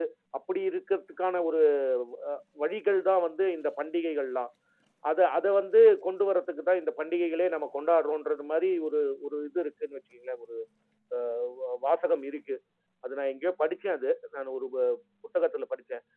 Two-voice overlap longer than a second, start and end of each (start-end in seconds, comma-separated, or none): none